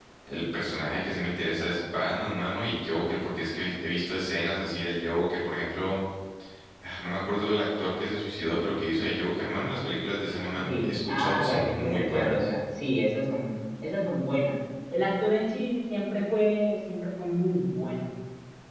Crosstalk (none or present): present